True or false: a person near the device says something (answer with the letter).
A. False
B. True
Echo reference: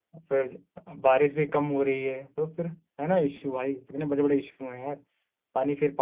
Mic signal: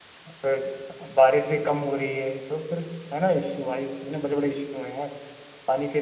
A